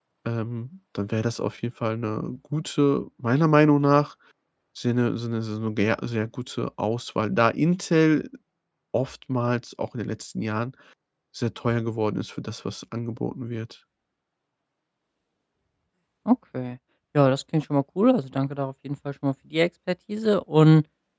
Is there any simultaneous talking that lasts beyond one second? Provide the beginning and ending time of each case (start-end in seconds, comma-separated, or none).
none